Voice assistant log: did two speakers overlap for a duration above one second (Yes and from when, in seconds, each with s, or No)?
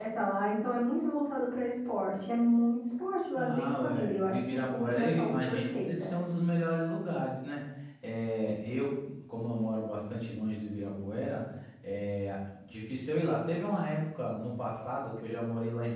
Yes, from 3.4 s